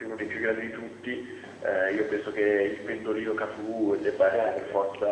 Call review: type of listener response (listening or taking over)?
taking over